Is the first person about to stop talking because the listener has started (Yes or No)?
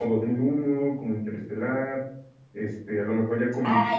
Yes